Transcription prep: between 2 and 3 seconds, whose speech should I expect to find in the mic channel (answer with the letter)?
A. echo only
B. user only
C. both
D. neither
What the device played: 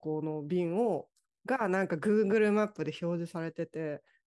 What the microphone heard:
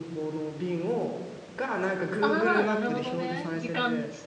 C